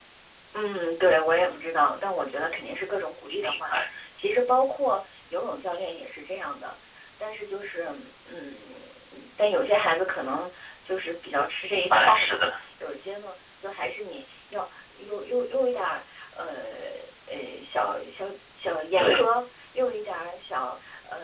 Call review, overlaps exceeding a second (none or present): none